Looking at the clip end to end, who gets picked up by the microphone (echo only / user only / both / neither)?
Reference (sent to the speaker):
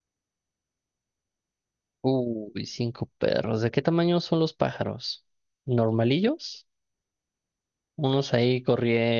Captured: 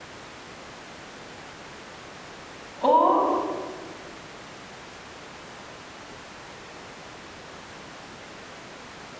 user only